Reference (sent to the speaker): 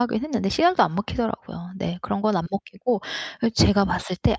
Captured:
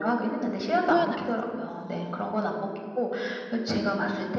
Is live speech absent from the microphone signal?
No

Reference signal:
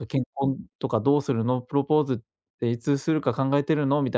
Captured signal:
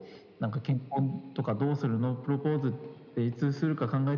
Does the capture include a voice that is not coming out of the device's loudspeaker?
No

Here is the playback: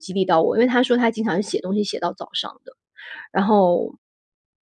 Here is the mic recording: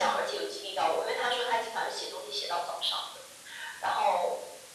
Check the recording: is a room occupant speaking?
No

